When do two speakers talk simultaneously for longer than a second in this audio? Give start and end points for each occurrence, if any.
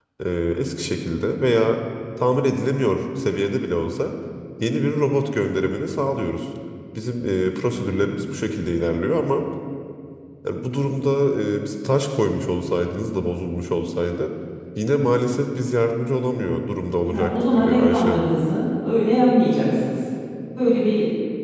17.1-18.3

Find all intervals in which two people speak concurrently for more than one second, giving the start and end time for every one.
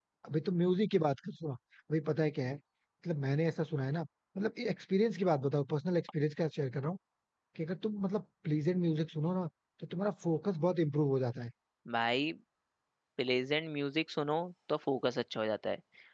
none

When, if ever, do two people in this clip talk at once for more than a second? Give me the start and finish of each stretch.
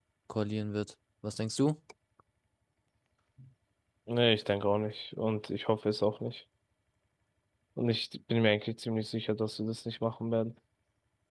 none

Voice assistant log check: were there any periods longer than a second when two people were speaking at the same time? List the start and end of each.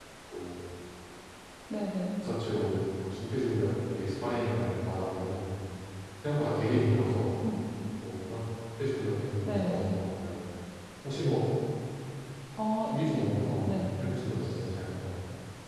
none

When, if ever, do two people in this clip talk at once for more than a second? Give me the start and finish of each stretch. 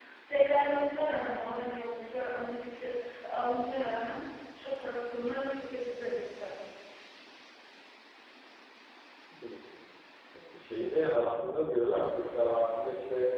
none

